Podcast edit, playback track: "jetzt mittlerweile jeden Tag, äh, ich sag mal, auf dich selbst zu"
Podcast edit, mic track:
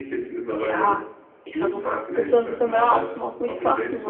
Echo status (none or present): present